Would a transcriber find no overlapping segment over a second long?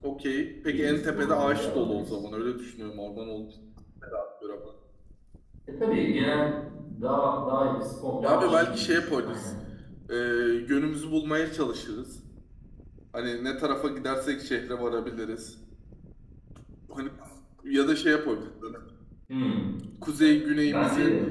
No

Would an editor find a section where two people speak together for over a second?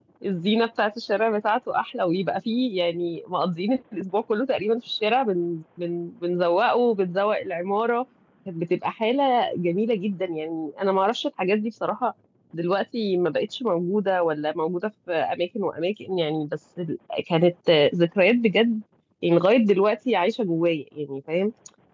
No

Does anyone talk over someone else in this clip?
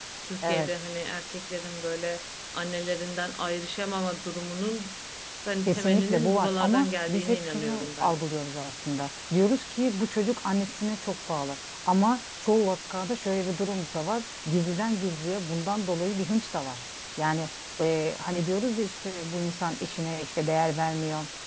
Yes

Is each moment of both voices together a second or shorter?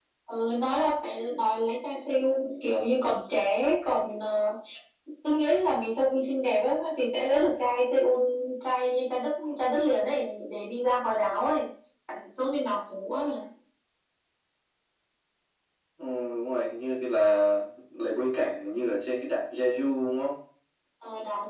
Yes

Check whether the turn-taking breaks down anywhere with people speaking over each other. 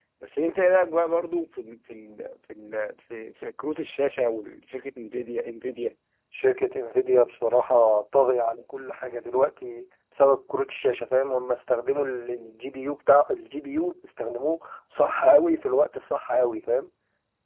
No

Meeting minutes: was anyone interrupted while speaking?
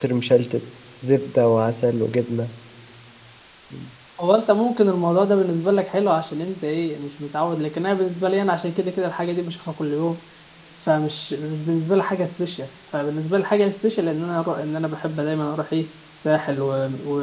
No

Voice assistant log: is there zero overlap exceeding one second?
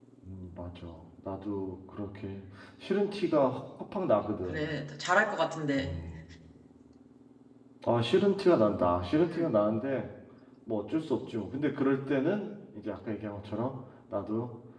Yes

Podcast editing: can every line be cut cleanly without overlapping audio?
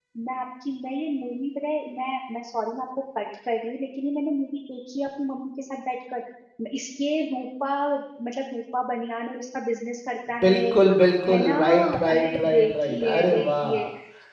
No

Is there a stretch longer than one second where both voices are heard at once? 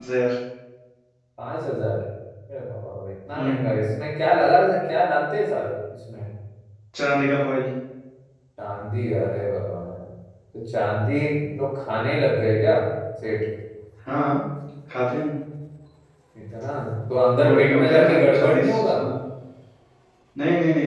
Yes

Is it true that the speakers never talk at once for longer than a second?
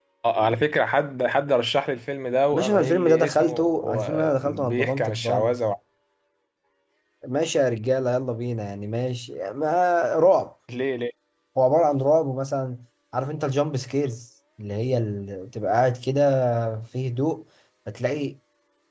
No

